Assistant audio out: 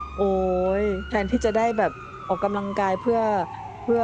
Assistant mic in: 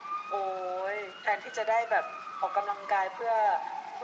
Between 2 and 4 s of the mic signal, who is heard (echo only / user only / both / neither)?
echo only